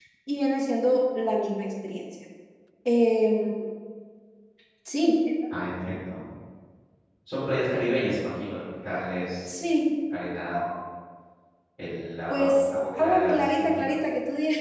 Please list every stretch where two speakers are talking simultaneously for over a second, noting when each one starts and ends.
12.3-13.9

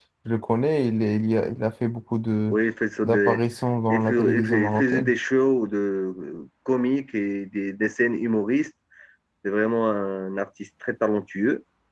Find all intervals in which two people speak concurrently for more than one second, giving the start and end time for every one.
3.9-5.1

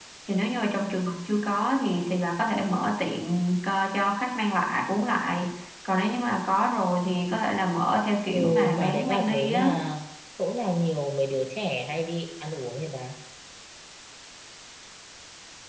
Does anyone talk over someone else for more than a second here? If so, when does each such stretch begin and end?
8.3-9.7

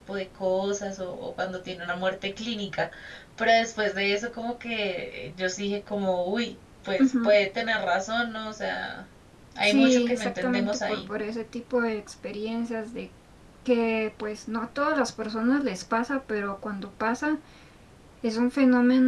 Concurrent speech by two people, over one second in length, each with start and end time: 9.6-11.1

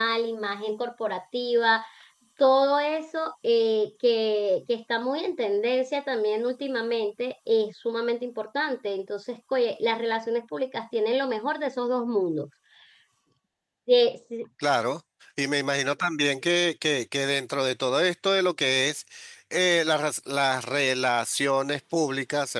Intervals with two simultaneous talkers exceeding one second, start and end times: none

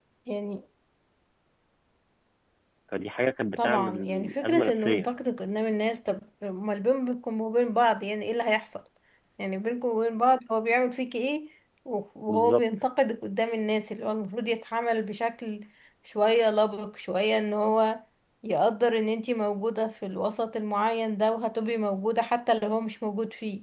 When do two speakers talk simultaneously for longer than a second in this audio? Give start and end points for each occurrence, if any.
3.6-5.0

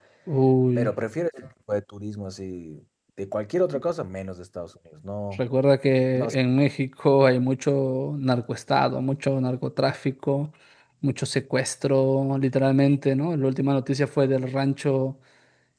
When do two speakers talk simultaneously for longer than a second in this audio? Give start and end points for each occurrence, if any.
none

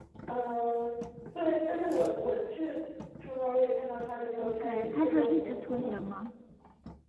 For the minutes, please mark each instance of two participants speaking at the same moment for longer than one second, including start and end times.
4.4-5.9

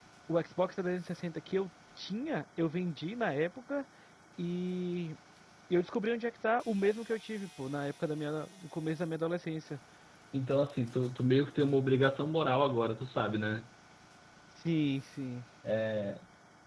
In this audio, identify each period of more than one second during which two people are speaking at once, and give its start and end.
none

